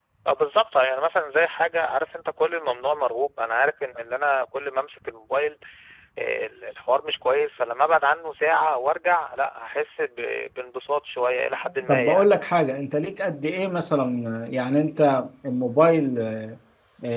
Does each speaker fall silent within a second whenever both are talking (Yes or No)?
Yes